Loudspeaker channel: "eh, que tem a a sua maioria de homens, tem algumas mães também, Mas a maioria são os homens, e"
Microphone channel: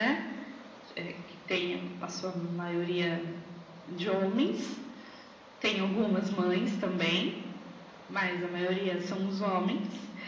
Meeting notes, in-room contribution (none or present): none